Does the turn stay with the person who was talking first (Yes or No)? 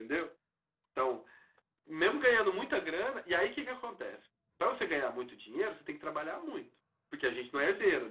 Yes